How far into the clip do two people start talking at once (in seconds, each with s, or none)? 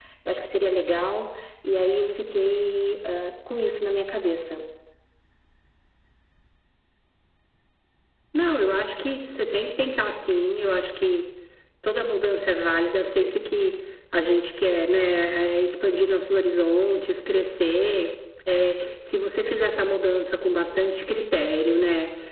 none